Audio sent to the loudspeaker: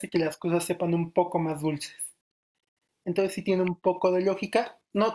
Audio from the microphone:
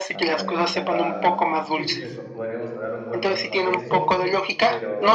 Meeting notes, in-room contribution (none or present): present